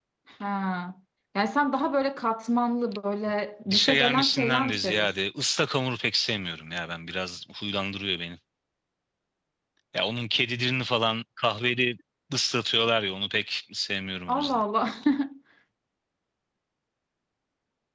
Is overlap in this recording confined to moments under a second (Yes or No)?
No